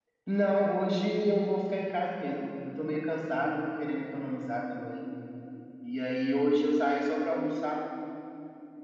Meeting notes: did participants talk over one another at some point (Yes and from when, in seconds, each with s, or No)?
No